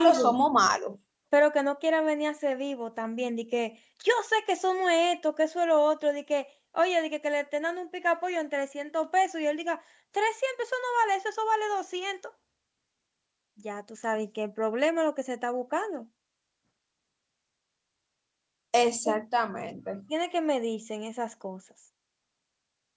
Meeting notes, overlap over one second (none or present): none